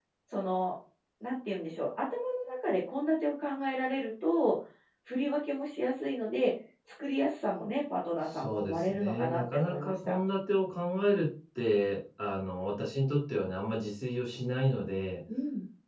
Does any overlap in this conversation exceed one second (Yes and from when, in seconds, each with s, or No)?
Yes, from 8.2 s